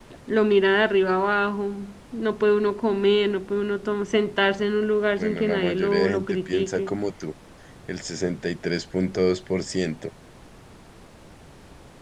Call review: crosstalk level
present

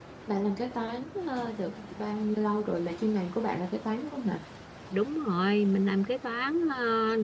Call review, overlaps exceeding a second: none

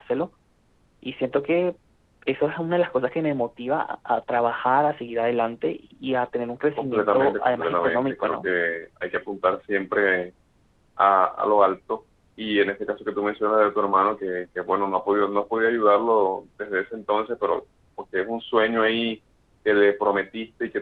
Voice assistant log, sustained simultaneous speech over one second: present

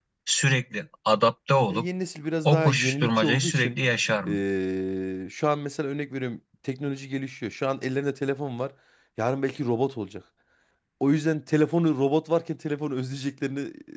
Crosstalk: present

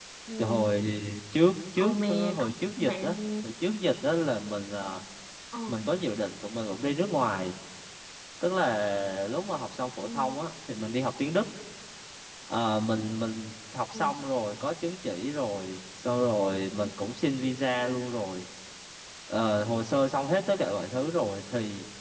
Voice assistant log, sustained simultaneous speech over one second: present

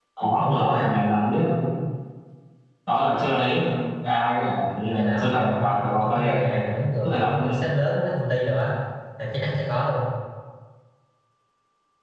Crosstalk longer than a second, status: present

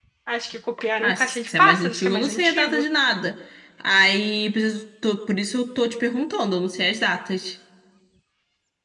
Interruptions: present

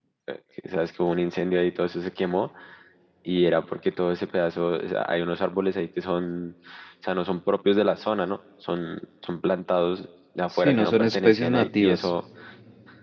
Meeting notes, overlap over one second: present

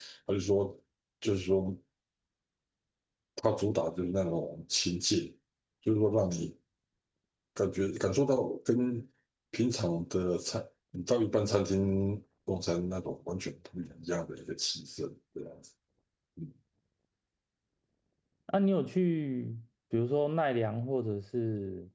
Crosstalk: none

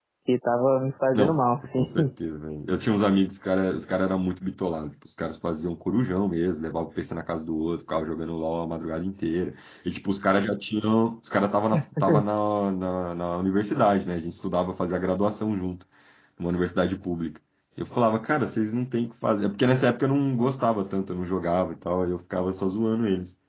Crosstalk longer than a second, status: none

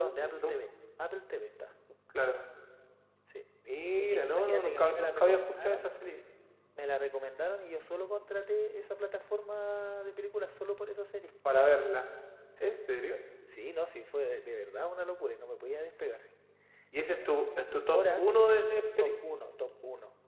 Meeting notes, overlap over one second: present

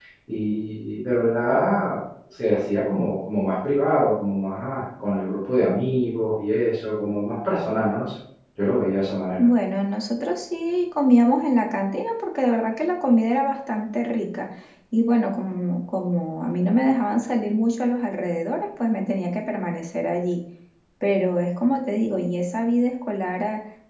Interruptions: none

